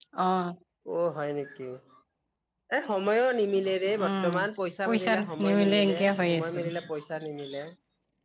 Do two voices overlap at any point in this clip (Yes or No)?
Yes